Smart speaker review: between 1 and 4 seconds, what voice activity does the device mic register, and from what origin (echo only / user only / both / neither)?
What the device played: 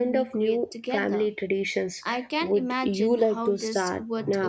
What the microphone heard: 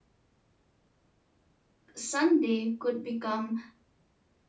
user only